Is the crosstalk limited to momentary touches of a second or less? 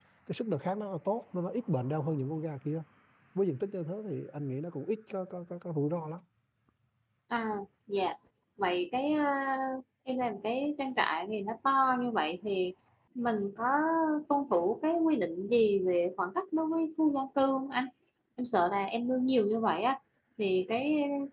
Yes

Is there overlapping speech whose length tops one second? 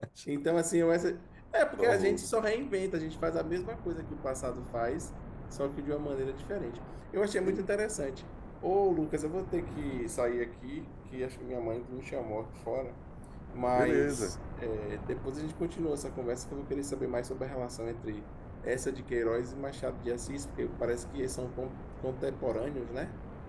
No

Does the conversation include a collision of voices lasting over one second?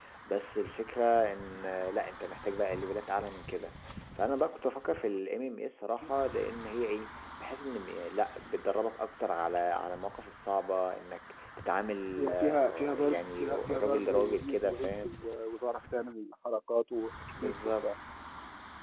Yes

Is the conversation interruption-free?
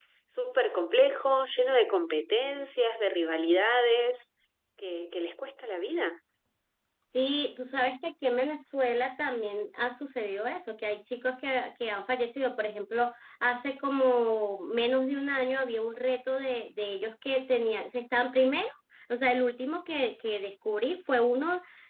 Yes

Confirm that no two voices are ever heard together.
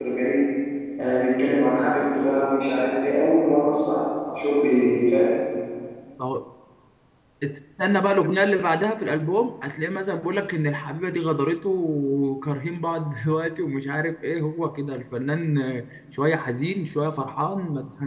Yes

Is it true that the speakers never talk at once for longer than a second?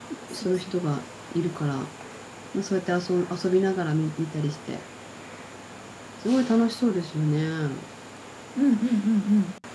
Yes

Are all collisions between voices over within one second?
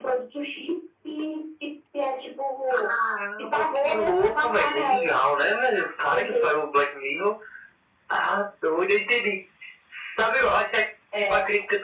No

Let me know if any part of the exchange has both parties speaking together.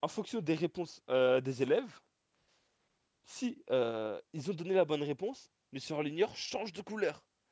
No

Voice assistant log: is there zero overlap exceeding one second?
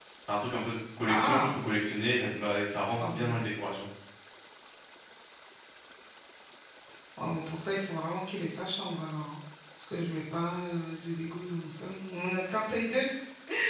Yes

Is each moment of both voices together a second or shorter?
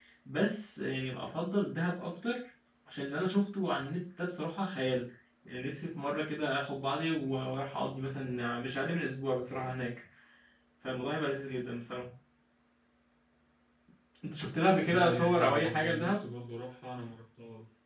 No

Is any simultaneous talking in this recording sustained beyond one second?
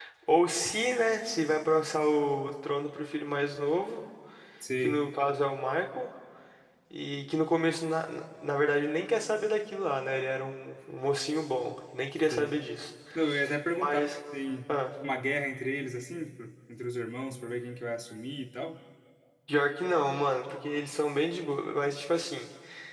No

